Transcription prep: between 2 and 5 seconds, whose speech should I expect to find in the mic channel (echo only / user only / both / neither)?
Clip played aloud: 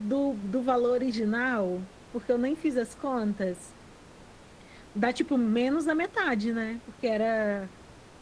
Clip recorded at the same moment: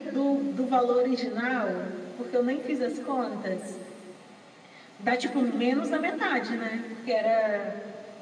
echo only